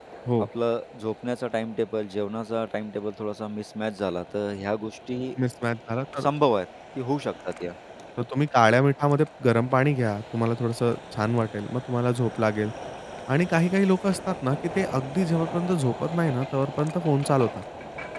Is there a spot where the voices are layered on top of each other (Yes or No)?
No